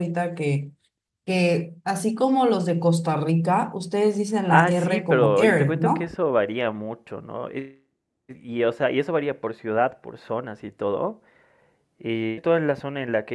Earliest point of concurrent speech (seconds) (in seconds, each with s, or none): 4.5 s